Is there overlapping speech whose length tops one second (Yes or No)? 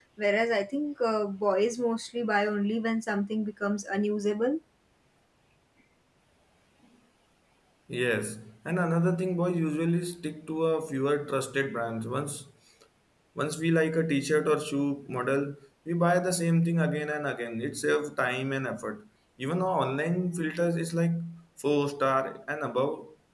No